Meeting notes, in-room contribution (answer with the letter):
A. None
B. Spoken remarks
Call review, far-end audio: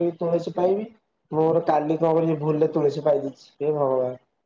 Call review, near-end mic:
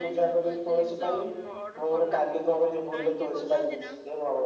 B